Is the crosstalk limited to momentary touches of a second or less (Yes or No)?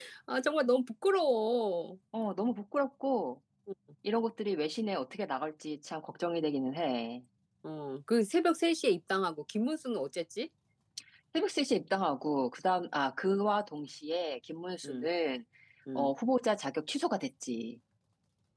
Yes